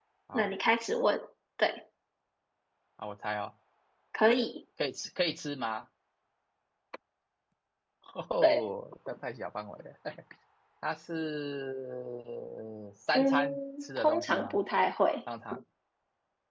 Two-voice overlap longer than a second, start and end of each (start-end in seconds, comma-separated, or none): 13.2-14.6